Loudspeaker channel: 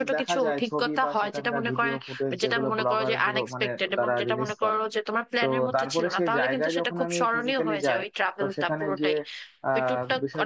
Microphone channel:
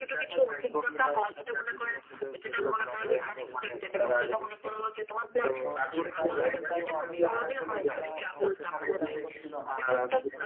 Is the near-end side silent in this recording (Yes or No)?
No